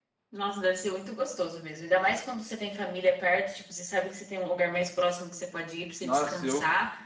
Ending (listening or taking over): taking over